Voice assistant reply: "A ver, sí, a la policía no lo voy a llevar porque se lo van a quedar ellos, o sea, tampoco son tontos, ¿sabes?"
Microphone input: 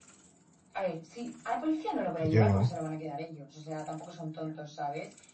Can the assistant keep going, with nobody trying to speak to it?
No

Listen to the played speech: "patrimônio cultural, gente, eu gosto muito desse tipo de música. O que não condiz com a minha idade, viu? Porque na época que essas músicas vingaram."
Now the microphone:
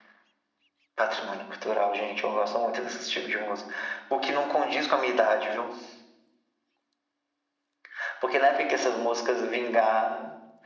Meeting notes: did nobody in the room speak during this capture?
Yes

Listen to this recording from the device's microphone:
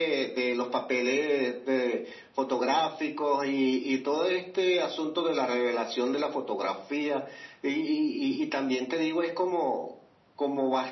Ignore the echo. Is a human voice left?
No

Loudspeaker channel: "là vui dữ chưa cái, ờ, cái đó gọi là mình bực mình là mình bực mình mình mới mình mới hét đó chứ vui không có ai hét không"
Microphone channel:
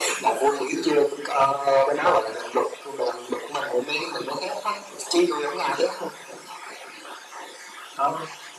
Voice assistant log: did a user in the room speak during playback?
No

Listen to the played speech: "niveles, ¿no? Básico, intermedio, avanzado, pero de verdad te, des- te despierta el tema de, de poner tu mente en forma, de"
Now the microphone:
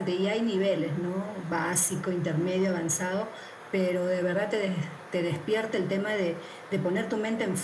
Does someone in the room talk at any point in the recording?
No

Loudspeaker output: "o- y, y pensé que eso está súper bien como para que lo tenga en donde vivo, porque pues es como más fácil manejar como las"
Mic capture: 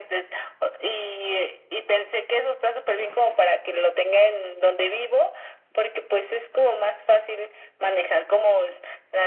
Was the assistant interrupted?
No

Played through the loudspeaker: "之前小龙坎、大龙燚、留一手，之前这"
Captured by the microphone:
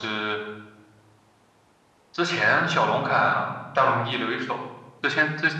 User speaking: No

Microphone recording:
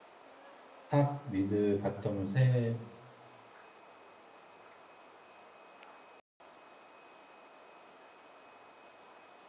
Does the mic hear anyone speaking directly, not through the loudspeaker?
Yes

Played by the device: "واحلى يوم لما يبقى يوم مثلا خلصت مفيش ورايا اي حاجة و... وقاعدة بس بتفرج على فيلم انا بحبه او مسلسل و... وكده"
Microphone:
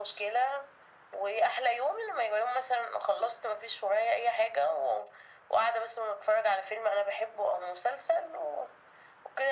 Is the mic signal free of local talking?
Yes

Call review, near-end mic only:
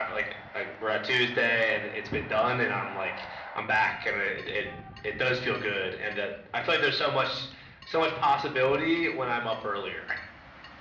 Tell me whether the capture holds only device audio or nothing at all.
Yes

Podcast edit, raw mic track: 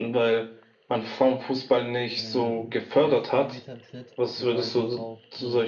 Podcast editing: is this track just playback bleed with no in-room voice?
No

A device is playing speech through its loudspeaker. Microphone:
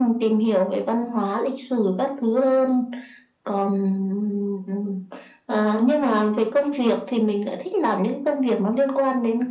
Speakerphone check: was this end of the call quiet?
Yes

